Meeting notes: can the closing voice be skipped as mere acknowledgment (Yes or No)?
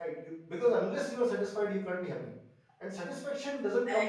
Yes